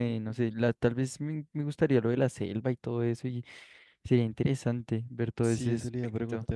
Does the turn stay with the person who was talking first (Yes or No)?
No